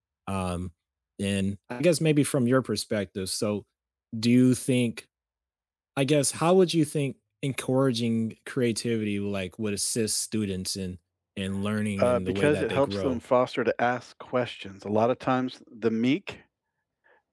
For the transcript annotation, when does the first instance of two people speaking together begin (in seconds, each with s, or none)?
12.0 s